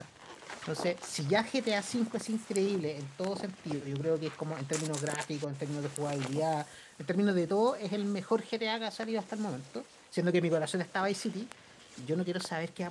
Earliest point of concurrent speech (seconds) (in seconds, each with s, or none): none